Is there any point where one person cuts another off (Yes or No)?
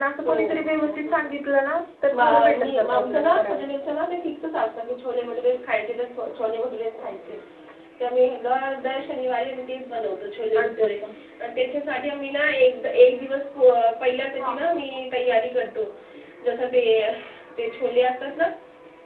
Yes